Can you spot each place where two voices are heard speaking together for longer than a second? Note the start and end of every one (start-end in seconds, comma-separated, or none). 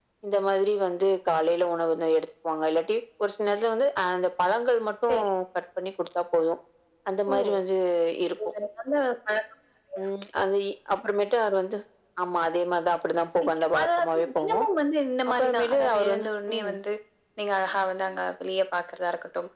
13.4-14.7, 15.3-16.7